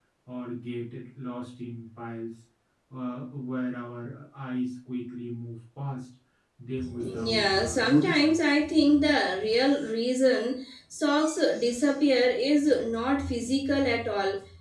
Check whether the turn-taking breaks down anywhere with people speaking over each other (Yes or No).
Yes